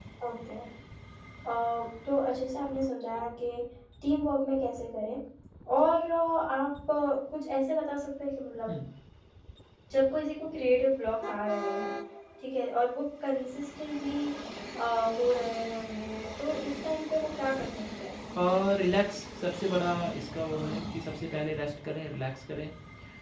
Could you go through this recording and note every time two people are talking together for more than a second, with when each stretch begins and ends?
none

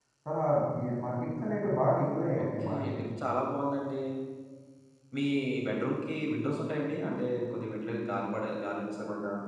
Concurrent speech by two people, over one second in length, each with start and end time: none

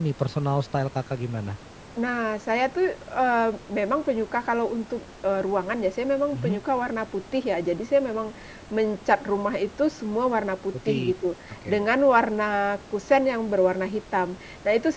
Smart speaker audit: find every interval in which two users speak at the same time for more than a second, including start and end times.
none

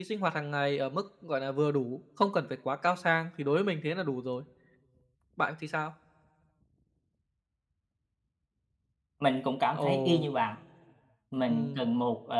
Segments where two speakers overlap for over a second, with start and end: none

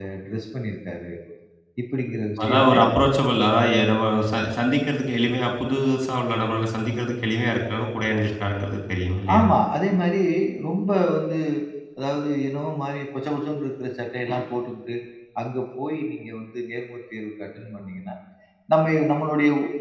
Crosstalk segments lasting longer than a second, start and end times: none

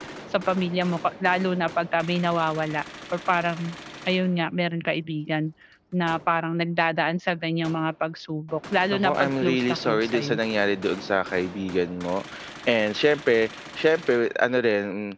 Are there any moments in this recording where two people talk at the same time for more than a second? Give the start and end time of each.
8.9-10.4

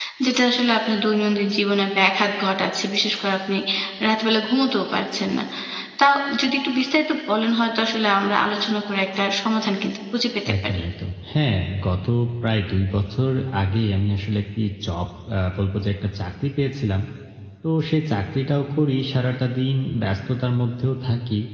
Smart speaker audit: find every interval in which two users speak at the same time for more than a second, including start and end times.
none

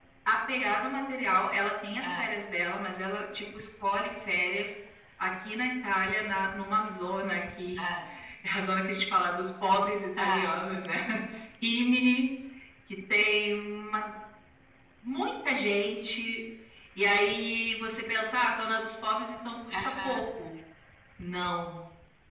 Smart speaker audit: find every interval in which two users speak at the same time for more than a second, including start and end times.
none

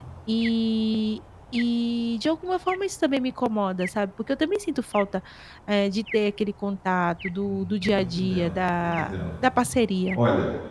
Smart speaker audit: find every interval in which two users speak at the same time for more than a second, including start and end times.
7.4-9.1

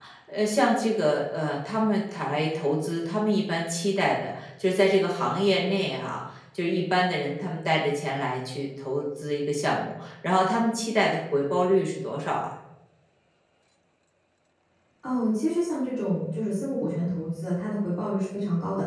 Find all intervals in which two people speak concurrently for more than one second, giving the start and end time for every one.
none

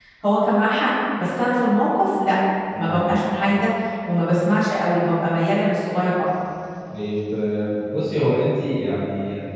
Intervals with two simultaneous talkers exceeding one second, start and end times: none

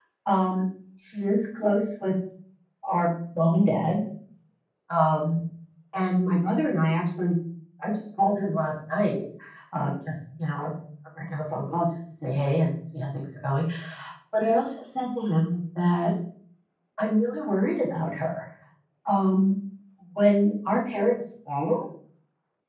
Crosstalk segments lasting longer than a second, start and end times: none

